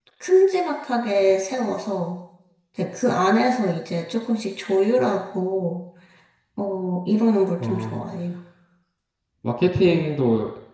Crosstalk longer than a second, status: none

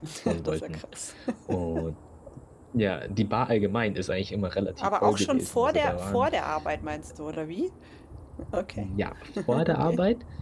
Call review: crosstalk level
present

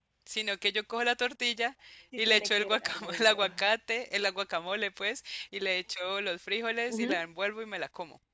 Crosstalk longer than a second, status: present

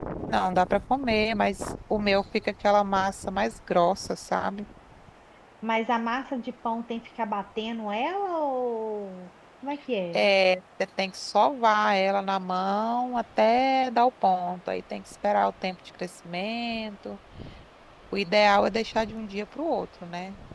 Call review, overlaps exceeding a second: none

